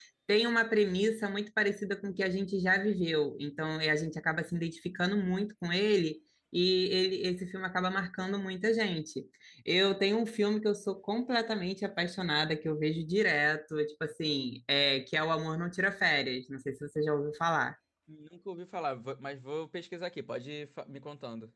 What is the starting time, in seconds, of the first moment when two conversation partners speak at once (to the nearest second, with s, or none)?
none